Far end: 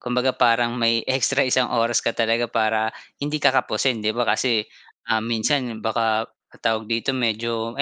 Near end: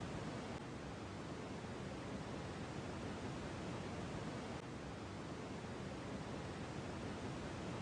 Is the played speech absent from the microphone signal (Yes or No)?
Yes